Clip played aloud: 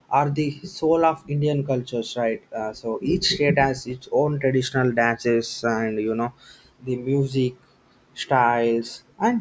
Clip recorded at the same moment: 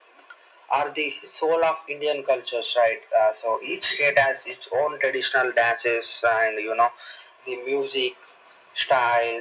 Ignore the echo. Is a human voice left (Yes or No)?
No